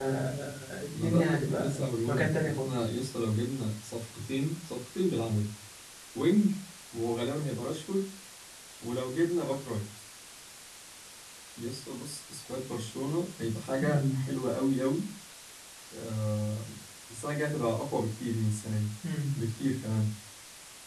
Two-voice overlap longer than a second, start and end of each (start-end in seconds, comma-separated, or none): 0.9-2.7